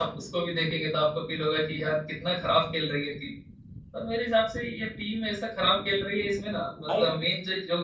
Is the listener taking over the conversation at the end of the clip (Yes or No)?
No